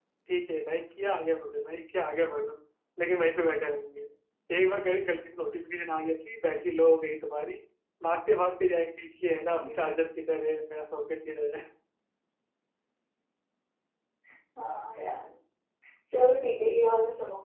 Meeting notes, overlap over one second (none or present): none